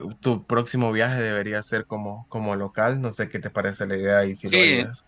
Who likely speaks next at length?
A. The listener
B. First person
A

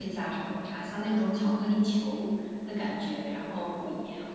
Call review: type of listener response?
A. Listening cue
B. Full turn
A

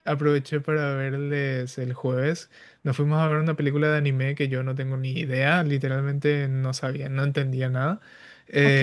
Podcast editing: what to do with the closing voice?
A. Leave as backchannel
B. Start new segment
A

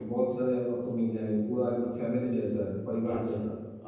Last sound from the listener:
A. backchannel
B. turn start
B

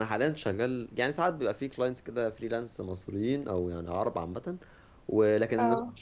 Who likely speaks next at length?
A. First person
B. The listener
A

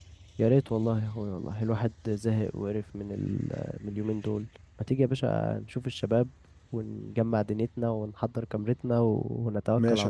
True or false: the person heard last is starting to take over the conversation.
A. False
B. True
B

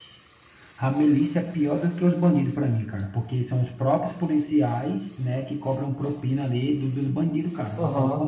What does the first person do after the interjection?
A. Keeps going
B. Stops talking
B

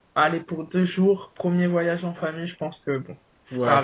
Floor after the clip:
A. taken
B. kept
A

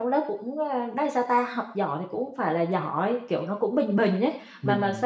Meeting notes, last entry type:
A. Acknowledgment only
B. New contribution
B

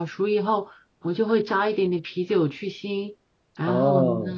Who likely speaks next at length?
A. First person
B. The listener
B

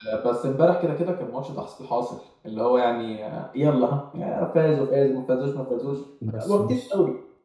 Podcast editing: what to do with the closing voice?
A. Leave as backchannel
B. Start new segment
B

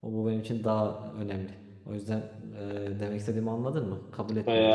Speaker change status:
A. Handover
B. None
A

